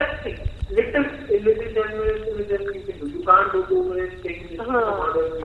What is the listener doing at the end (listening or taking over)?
listening